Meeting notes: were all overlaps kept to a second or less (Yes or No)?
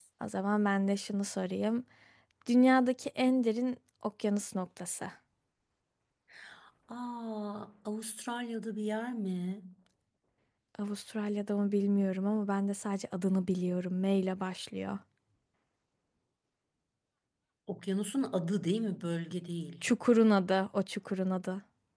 Yes